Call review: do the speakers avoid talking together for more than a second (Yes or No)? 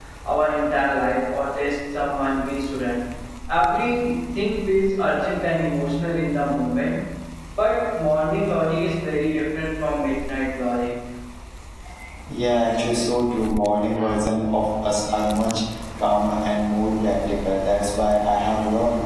Yes